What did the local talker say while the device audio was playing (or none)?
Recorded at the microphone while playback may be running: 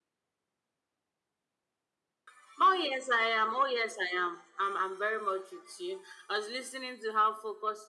none